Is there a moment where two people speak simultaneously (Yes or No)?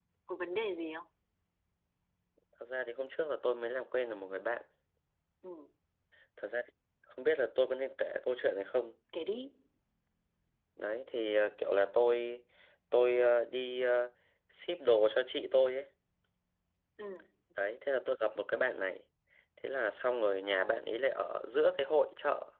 No